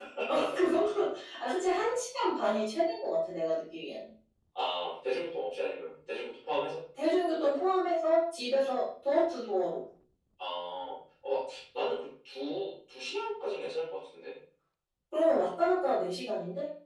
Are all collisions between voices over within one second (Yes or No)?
Yes